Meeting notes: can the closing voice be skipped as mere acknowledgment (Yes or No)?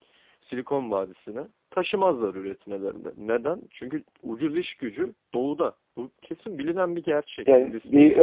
No